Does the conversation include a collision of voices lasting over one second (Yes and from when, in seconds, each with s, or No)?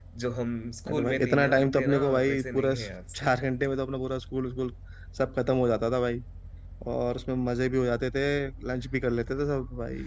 Yes, from 0.9 s